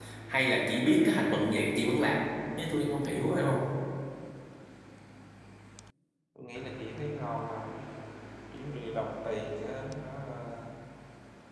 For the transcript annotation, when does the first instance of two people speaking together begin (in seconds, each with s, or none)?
none